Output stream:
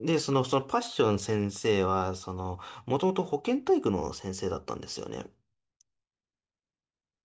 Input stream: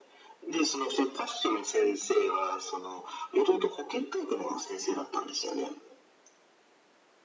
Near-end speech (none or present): none